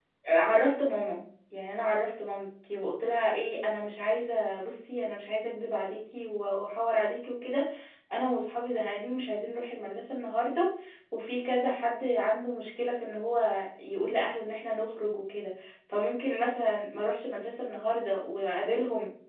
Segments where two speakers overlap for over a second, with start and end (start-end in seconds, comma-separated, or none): none